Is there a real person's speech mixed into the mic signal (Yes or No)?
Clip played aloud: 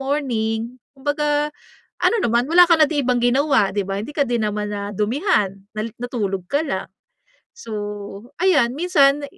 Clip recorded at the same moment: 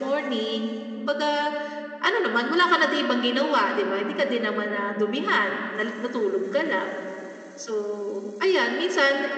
No